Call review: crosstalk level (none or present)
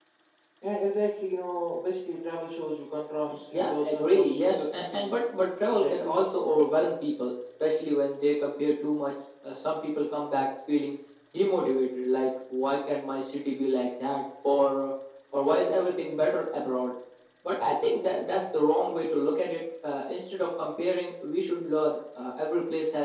present